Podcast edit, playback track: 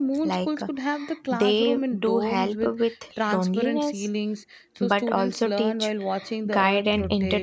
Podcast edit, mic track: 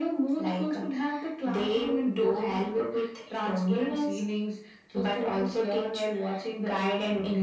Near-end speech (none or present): none